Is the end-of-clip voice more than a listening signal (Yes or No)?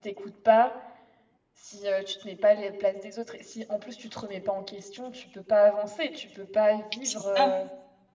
No